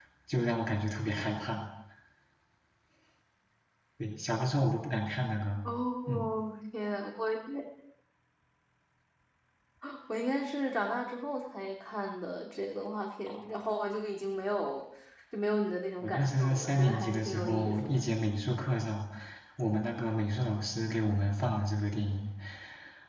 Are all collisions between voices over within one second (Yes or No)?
No